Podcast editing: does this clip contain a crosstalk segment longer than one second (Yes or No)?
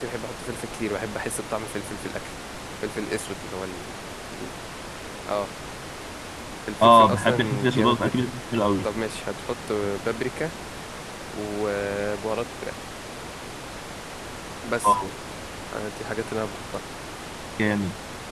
Yes